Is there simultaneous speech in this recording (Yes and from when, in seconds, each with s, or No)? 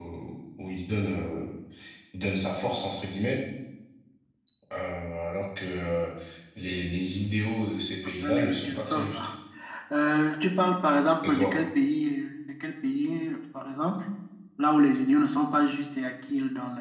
Yes, from 8.0 s